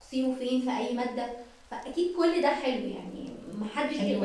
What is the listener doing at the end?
taking over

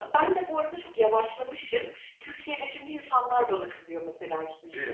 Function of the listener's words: taking over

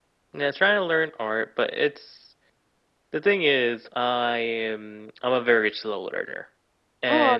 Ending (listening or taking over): taking over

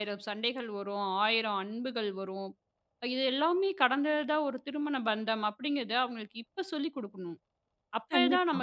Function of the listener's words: listening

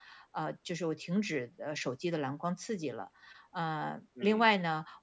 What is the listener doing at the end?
listening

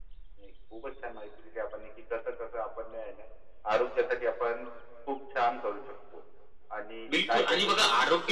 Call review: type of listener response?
taking over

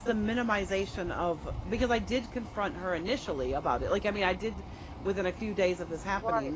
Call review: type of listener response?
taking over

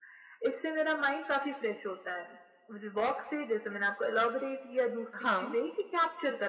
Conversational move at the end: listening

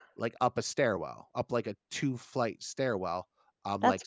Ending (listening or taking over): listening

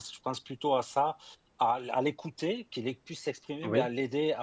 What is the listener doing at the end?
listening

